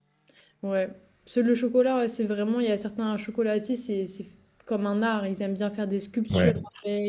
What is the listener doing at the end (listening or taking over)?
listening